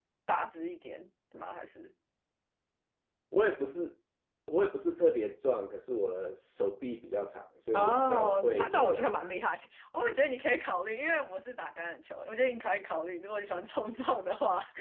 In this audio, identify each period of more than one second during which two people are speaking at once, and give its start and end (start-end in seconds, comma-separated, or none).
7.7-9.3